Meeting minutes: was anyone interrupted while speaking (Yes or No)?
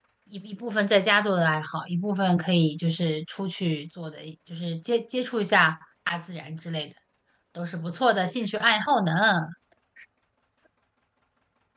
No